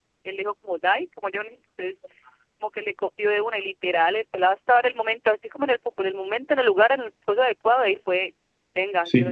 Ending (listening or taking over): taking over